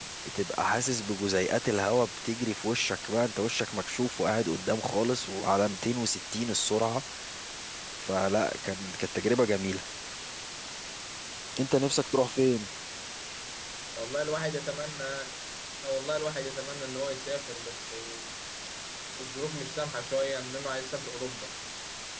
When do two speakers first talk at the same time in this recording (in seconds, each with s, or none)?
none